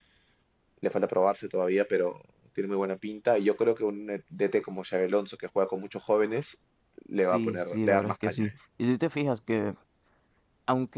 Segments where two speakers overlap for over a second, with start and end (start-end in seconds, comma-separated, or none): 7.2-8.5